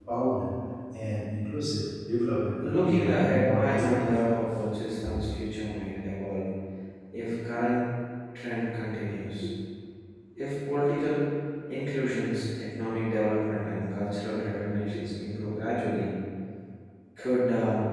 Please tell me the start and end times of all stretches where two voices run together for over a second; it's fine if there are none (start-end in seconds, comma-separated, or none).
2.6-4.1